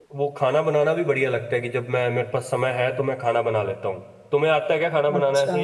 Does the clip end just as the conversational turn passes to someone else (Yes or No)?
Yes